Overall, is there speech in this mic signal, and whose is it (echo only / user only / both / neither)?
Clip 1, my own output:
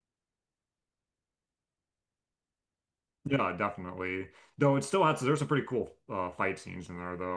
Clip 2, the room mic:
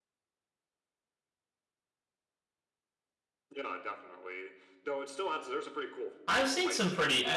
both